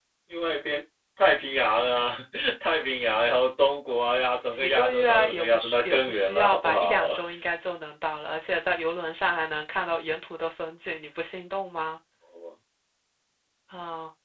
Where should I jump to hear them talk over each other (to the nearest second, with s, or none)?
5 s